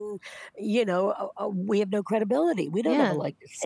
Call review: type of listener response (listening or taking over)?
taking over